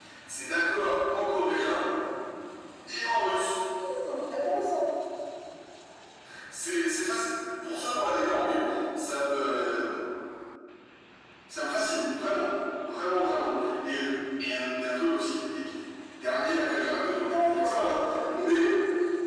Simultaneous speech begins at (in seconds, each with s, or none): 17.2 s